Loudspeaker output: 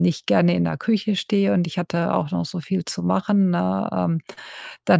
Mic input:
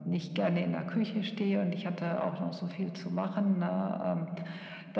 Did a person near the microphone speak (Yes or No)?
No